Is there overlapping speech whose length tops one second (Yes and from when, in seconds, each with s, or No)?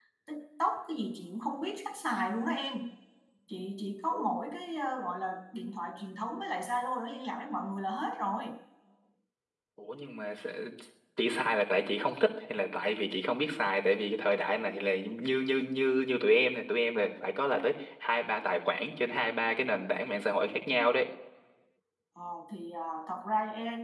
No